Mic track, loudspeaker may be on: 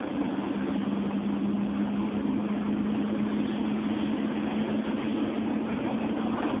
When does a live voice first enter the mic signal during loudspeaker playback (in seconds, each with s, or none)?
none